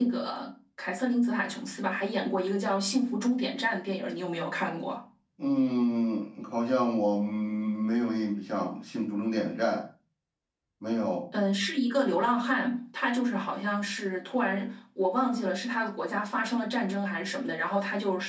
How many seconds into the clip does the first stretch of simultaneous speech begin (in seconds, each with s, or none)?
none